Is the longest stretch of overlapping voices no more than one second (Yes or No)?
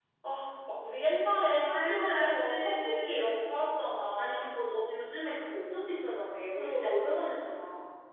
No